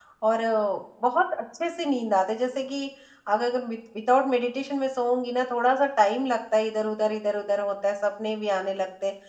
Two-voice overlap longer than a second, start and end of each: none

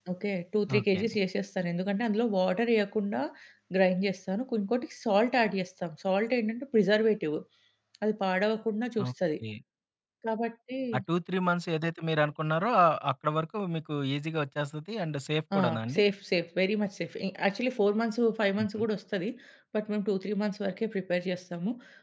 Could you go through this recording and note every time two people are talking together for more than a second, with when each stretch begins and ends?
none

